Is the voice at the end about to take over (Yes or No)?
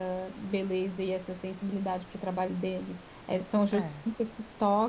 No